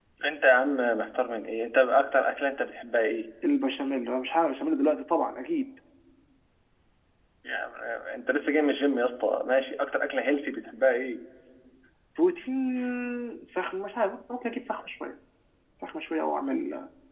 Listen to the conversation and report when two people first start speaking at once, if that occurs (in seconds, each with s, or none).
none